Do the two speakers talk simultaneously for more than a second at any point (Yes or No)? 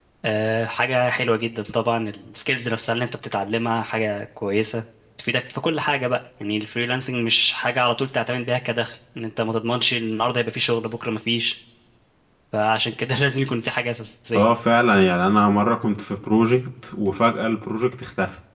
No